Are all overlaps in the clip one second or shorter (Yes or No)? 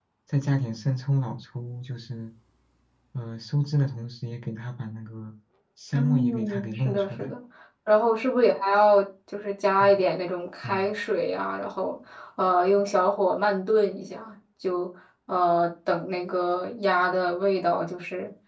No